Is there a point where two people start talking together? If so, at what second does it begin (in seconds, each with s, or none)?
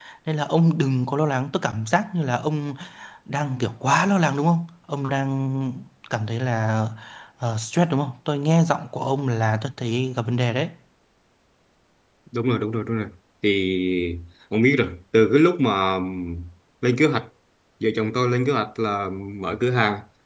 none